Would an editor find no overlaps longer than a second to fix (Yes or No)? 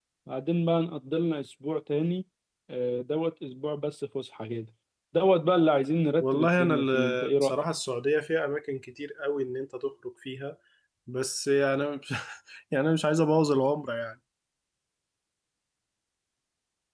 No